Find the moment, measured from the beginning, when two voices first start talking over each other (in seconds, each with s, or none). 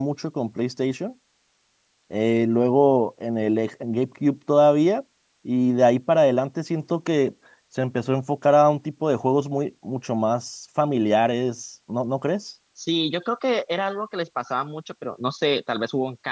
none